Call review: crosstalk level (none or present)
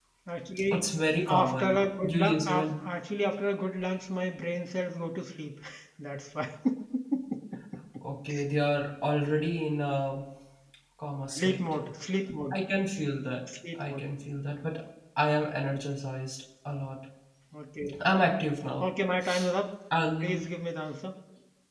present